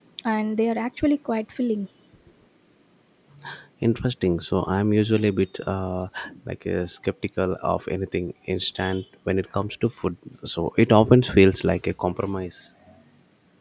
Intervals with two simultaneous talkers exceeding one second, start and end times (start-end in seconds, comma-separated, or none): none